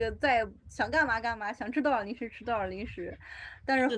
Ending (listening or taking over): listening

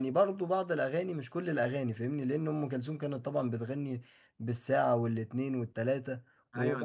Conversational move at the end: taking over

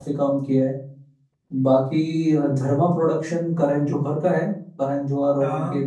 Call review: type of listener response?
listening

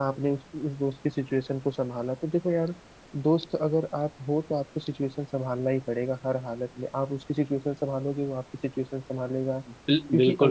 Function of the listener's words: taking over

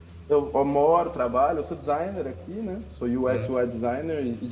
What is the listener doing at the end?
listening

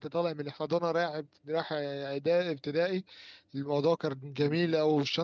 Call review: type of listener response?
listening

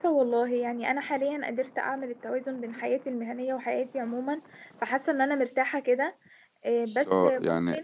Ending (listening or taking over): taking over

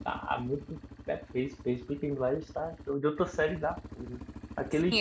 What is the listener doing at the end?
taking over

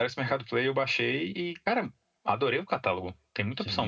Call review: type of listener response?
taking over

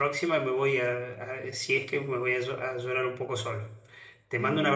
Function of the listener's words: listening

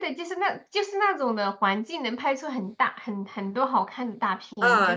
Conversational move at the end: taking over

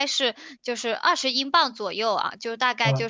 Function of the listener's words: listening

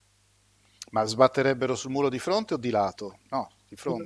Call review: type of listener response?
taking over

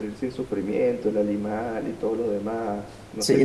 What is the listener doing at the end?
taking over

